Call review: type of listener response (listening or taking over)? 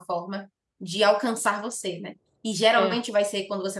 listening